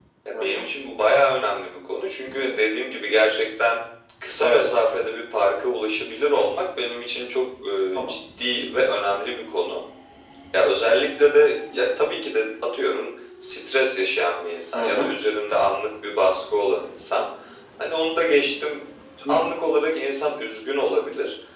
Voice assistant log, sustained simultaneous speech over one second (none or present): none